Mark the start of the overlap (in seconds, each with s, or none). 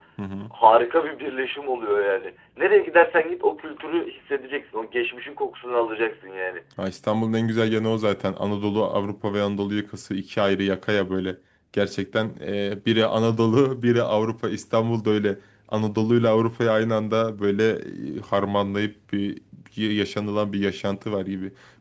none